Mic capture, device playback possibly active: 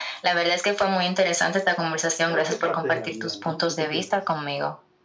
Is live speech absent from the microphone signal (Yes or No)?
No